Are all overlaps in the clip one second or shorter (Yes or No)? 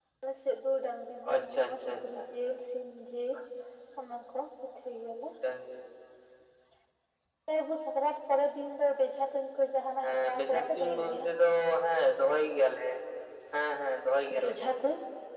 No